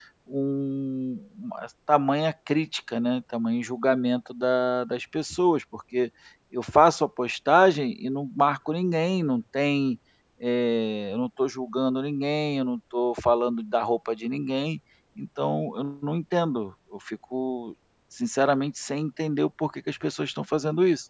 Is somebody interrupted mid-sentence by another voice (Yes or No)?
No